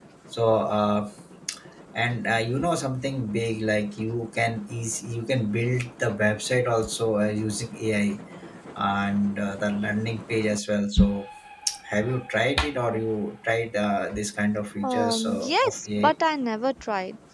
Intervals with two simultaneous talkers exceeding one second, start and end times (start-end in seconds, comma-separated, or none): 14.8-16.1